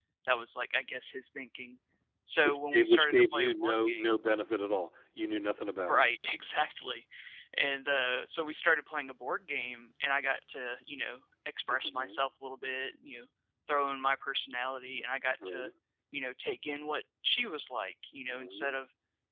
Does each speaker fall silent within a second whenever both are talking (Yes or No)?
No